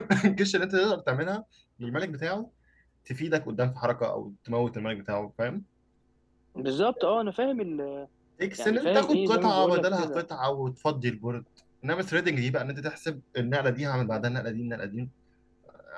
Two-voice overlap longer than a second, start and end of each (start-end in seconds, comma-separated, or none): 8.6-10.2